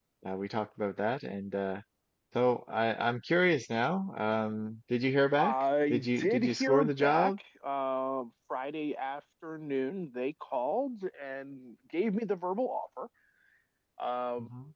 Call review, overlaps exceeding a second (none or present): present